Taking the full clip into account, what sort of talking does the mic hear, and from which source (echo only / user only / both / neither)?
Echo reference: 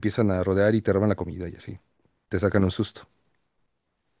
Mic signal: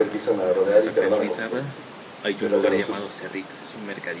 both